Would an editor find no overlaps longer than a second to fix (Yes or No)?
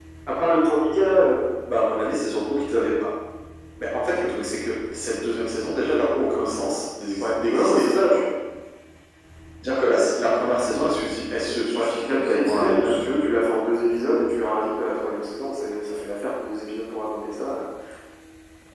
No